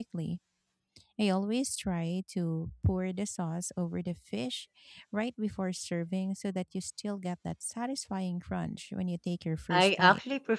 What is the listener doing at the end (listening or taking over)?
taking over